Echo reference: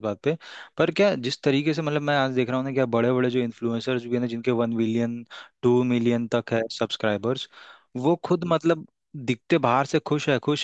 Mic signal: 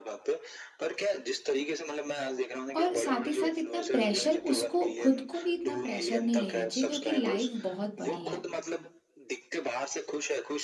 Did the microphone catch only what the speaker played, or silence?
No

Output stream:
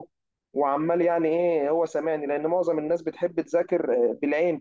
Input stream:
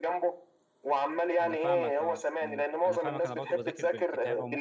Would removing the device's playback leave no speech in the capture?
No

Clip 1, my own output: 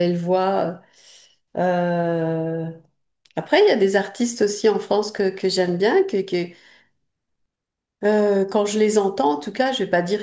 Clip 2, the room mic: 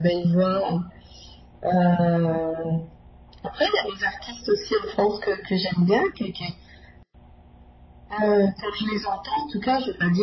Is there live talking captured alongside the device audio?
No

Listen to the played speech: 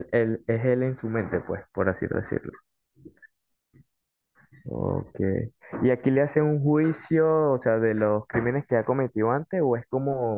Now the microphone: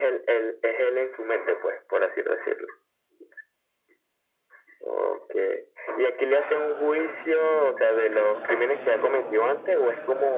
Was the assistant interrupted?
Yes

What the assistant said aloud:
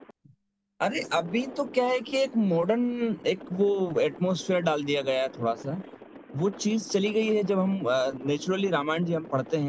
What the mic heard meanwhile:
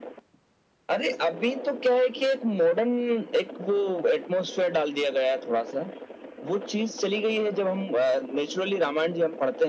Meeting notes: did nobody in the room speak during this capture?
Yes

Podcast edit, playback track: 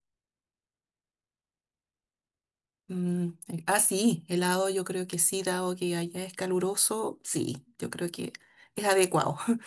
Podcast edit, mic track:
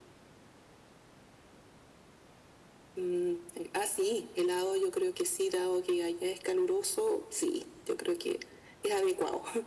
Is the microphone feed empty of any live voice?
Yes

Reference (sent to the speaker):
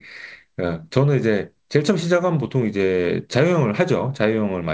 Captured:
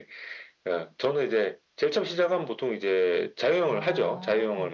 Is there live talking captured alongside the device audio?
Yes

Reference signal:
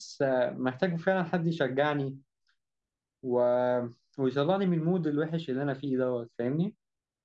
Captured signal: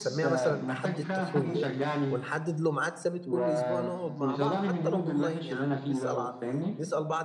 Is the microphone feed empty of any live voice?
No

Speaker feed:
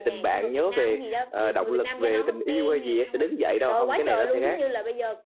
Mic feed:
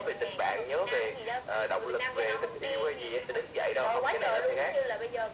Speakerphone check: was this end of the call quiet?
Yes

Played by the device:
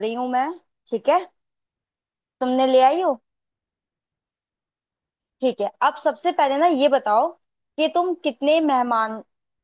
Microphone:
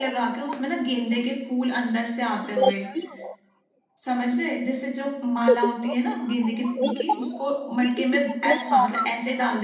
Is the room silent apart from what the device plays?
No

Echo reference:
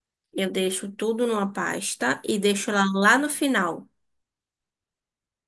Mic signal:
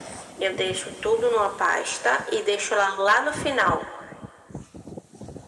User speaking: No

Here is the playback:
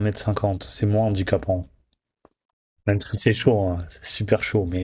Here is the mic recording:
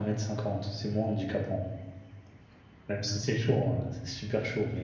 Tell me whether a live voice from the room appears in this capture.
No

